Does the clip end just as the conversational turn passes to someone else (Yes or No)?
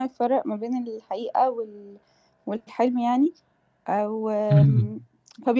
No